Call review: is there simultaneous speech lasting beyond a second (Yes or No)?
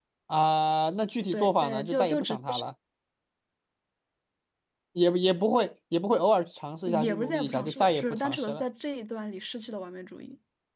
Yes